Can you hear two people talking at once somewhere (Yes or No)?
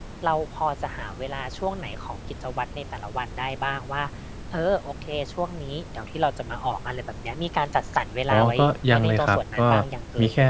Yes